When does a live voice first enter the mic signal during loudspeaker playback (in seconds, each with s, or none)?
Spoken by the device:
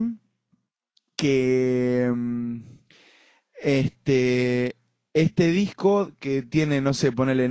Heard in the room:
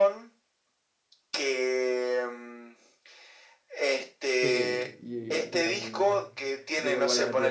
4.4 s